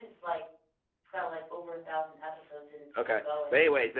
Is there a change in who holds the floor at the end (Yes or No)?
Yes